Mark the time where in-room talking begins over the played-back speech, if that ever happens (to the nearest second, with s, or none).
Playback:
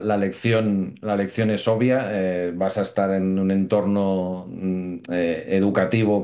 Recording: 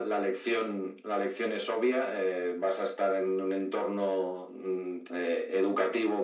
none